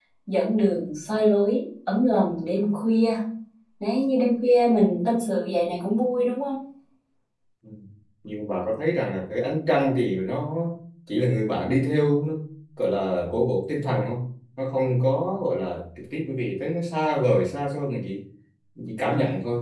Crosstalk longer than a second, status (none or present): none